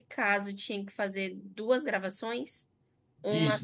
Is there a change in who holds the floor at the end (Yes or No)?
Yes